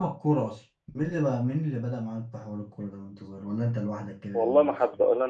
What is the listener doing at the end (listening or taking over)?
taking over